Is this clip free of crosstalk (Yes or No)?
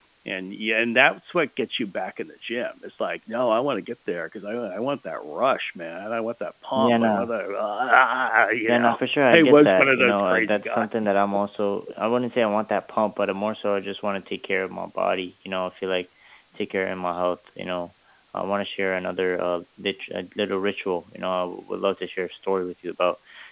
No